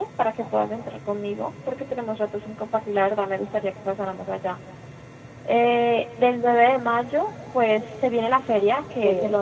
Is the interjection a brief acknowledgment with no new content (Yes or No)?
Yes